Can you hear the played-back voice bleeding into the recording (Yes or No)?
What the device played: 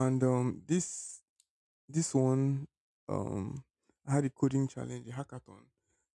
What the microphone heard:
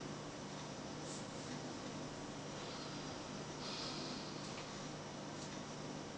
No